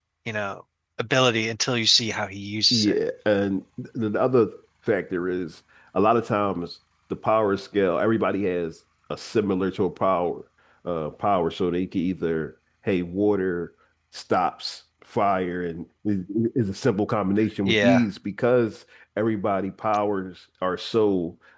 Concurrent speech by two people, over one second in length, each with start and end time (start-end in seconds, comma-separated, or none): none